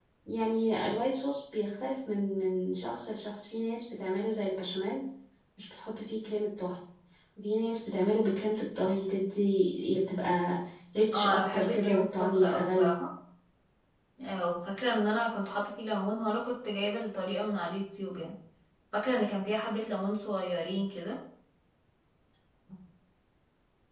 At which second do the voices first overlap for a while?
11.1 s

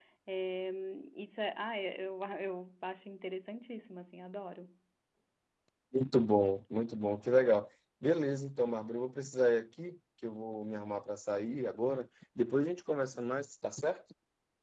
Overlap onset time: none

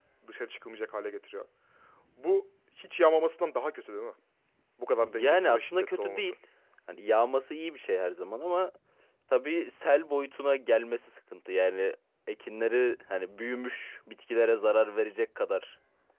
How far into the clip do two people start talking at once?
5.0 s

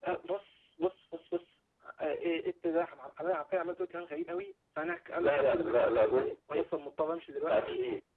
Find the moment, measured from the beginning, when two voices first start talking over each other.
5.2 s

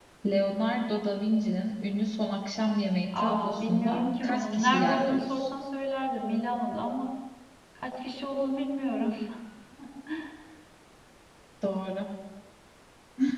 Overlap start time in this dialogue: 3.1 s

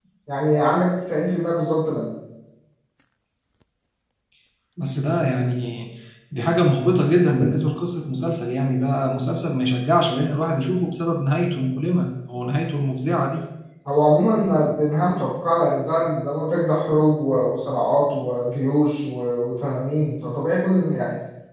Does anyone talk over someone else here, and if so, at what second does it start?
none

